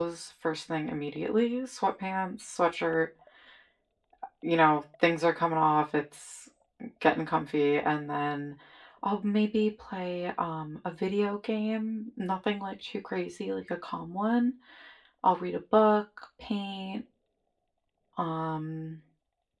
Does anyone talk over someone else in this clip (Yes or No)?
No